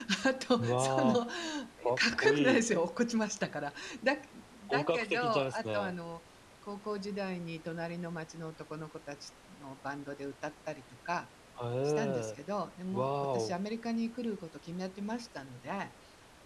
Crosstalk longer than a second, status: present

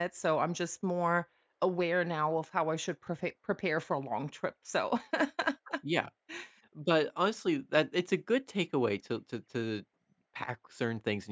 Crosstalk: none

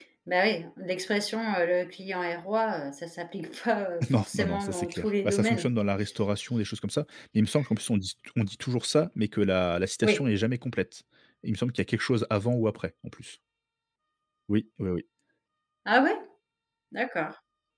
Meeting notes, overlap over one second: present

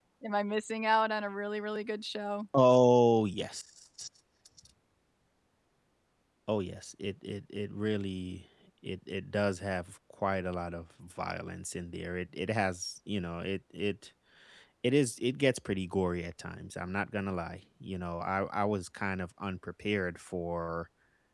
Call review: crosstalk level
none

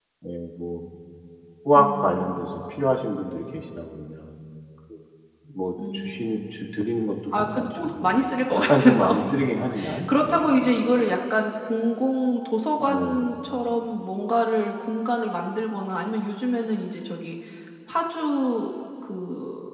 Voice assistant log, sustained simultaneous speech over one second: present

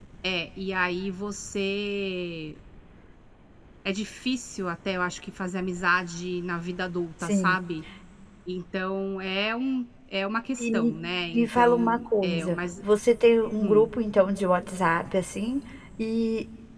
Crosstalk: present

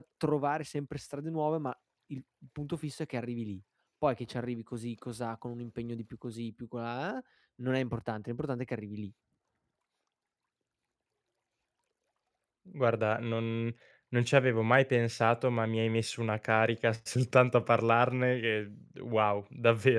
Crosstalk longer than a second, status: none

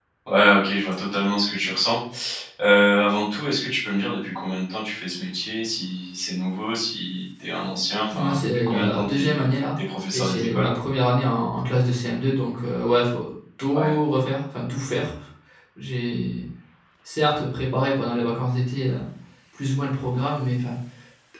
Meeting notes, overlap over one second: present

